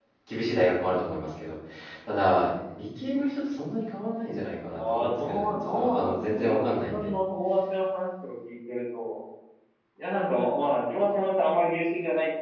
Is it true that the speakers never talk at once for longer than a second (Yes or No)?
No